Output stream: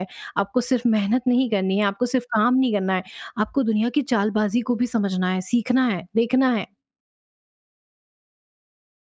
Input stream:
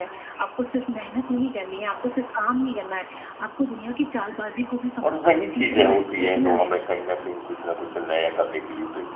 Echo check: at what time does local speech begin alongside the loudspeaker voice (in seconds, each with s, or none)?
5.0 s